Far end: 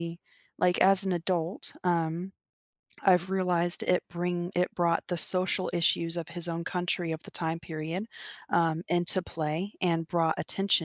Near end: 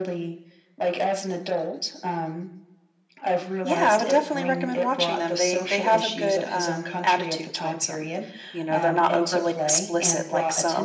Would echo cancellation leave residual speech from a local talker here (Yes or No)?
Yes